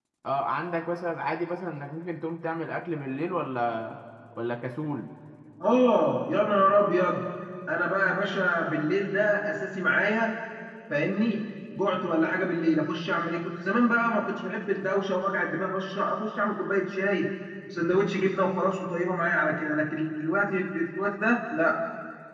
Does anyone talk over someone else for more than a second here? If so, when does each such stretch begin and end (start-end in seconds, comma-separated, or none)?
none